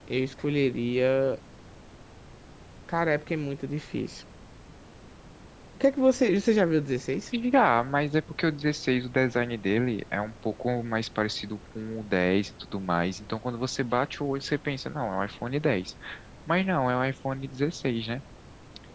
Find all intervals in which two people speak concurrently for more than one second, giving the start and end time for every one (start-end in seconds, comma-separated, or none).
none